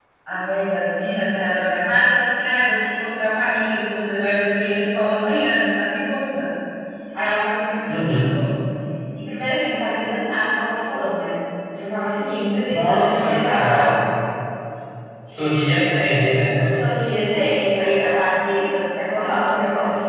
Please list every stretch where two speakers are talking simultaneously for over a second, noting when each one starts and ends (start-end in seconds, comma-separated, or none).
12.7-13.9